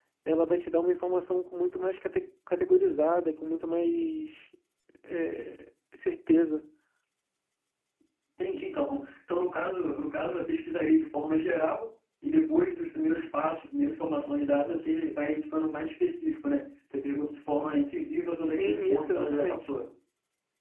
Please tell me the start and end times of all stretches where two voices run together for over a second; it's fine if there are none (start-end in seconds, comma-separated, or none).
18.4-19.7